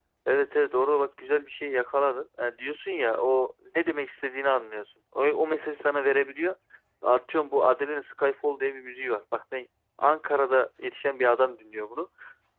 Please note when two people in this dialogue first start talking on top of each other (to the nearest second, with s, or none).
none